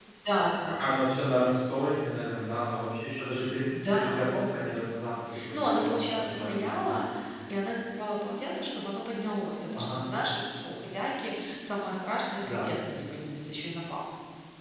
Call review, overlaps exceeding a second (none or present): present